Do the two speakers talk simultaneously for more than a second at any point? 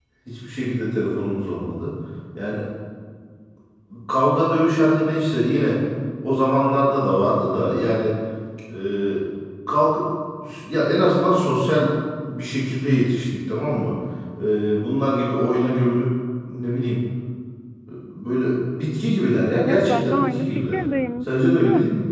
Yes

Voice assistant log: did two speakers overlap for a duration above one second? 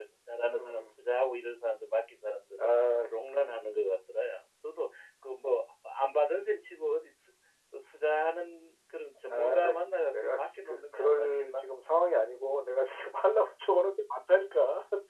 Yes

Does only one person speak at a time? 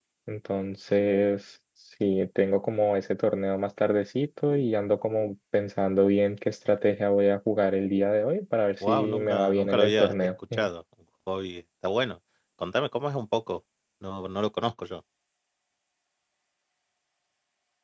No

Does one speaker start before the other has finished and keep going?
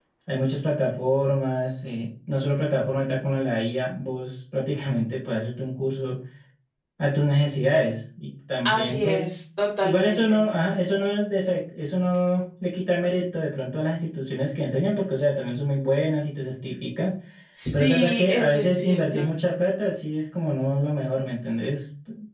Yes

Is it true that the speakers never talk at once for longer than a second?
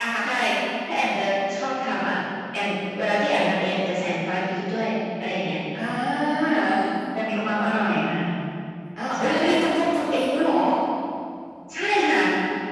Yes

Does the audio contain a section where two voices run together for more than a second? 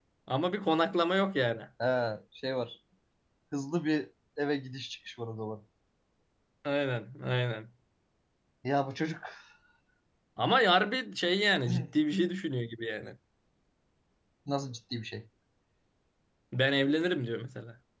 No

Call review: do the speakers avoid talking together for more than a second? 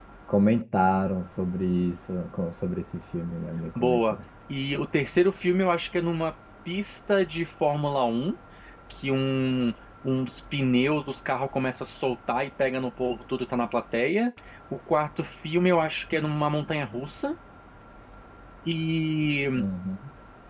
Yes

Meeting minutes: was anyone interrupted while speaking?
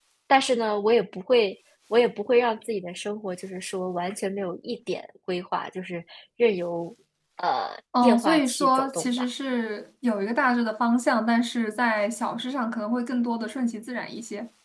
Yes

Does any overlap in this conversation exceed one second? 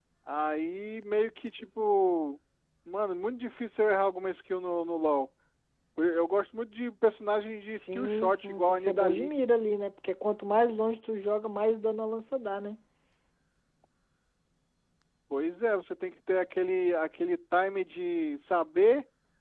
Yes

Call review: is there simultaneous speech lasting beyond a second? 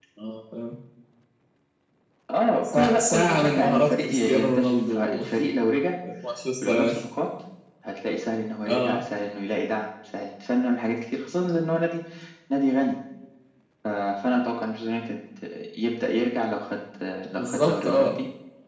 Yes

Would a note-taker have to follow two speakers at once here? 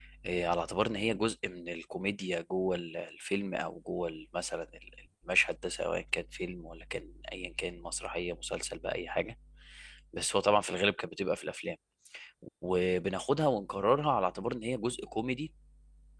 No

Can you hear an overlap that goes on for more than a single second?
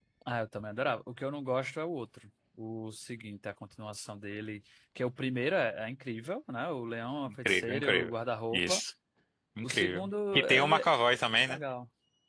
Yes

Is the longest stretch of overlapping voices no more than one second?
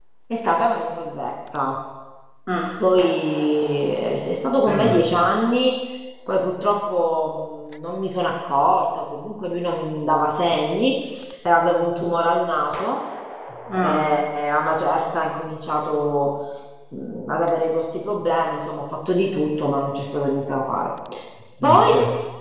Yes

